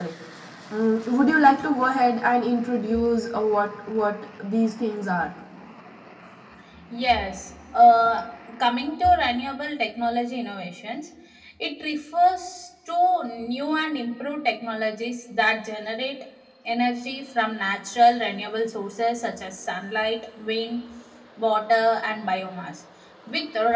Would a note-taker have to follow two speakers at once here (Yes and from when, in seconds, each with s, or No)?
No